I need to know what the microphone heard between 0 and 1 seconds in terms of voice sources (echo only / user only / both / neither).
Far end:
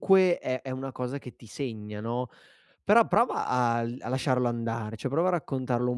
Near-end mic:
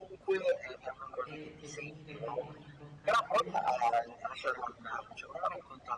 echo only